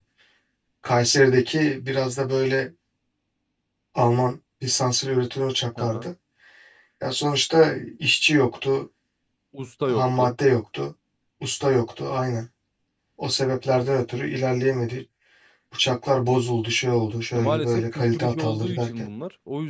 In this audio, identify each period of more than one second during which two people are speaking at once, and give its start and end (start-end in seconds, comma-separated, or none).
17.3-18.9